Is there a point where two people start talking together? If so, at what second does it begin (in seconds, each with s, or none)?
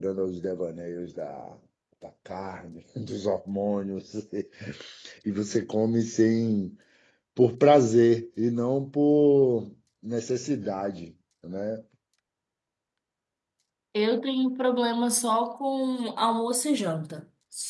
none